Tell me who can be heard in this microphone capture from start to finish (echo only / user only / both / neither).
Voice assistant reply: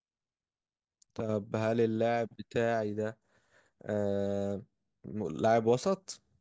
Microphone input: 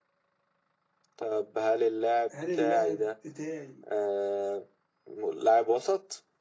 both